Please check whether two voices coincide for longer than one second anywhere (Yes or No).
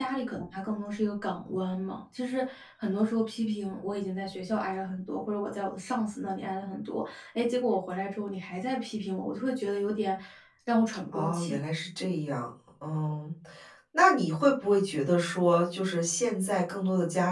No